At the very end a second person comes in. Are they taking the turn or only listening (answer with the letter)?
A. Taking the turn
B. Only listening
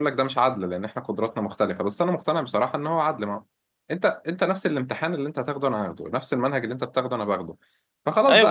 B